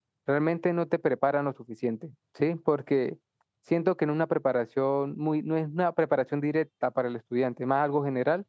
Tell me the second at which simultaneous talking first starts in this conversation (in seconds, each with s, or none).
none